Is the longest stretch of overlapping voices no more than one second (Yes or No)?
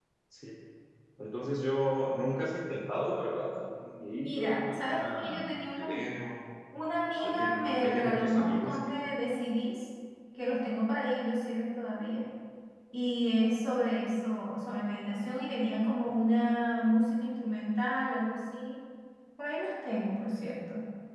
No